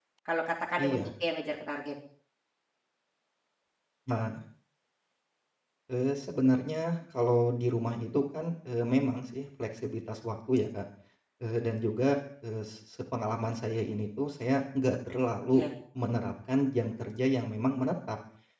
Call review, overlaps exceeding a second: none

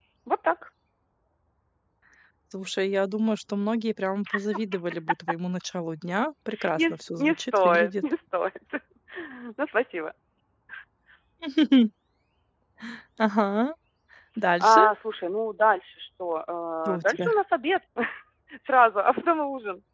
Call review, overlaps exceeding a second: present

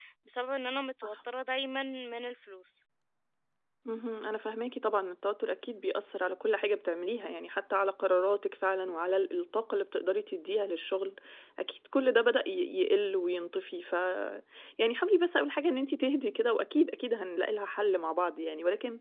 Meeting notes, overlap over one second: none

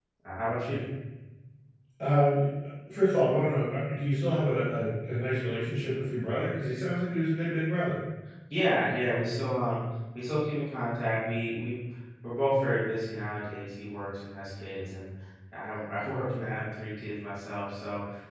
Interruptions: none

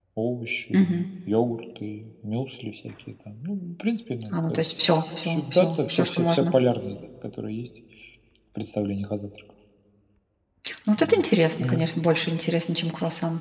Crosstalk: present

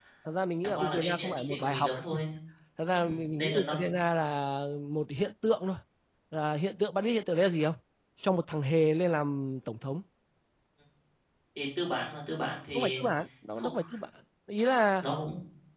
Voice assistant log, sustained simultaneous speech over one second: present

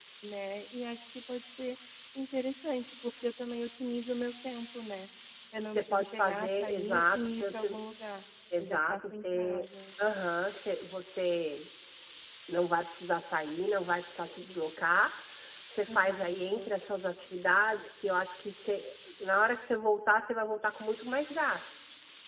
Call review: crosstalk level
present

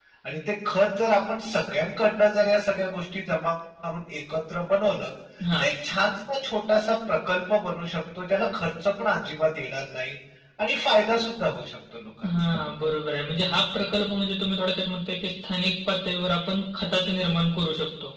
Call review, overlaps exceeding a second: none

